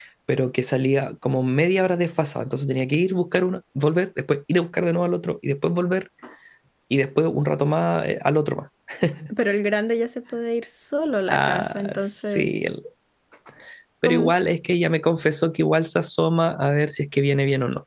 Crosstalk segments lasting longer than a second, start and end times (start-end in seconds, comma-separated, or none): 11.3-12.5